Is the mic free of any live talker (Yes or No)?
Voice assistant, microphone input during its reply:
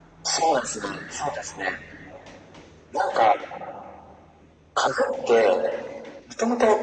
Yes